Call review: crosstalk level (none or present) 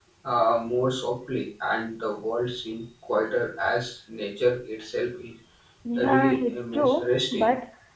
present